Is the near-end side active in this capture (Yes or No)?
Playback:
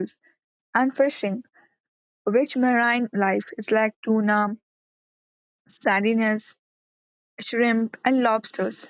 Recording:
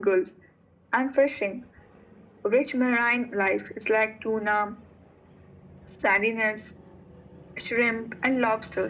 No